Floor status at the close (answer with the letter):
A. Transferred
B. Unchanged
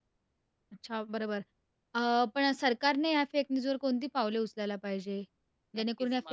A